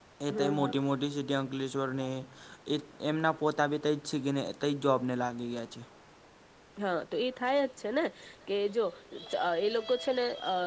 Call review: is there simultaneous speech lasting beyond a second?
No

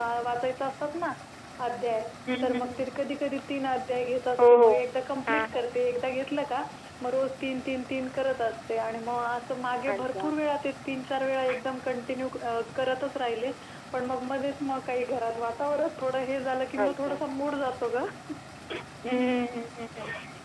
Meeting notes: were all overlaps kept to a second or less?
Yes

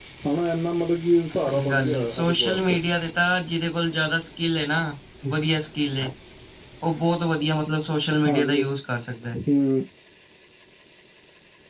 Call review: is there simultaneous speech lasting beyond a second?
Yes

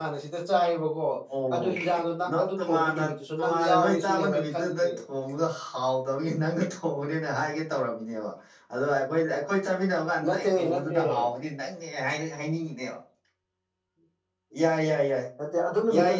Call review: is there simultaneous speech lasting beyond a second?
Yes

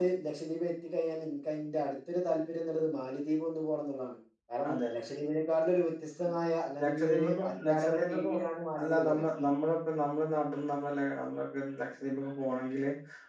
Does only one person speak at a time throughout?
No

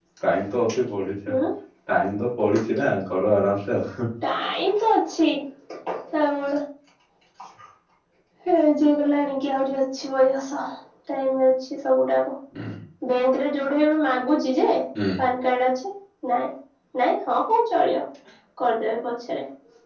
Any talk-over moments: No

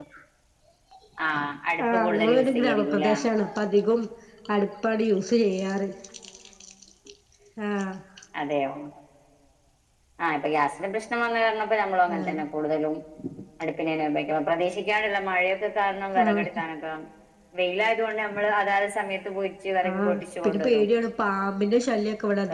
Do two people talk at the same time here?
Yes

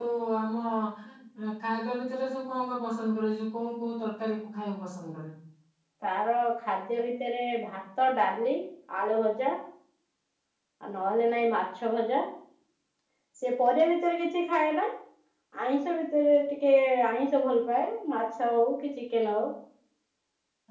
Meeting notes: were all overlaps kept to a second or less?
Yes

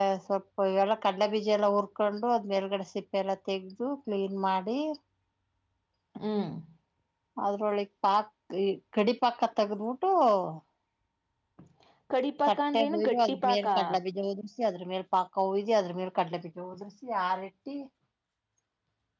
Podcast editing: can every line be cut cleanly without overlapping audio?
No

